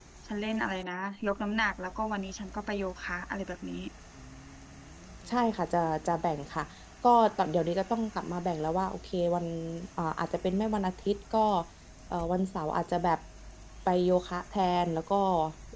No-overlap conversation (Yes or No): Yes